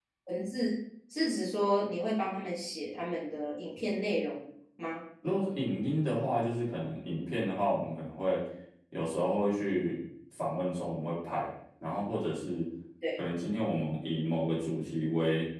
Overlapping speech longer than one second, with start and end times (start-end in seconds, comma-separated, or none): none